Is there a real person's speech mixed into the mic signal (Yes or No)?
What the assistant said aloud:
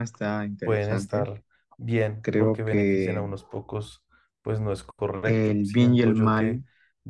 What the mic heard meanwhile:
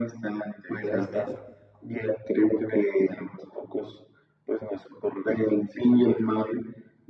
Yes